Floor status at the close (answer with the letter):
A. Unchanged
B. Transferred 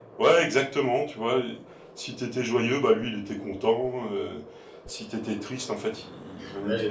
A